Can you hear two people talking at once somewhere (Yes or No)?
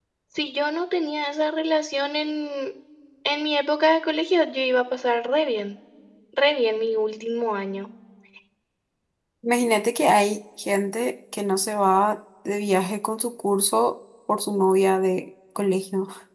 No